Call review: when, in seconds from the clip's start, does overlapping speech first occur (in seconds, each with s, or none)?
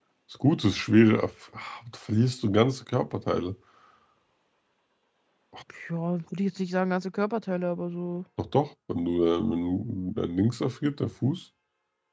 none